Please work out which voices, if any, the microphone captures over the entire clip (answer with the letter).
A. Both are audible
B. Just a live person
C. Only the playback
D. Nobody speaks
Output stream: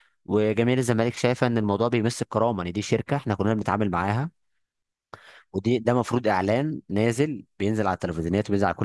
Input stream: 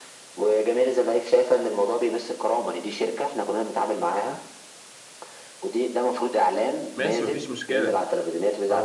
A